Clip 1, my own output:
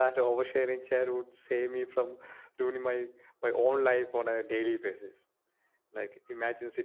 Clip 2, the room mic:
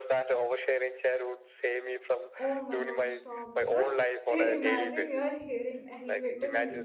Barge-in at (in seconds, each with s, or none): 2.4 s